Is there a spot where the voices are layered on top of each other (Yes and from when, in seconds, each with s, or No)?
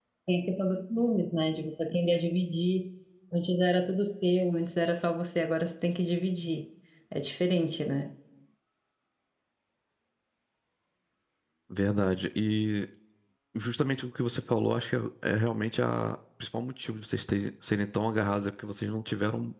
No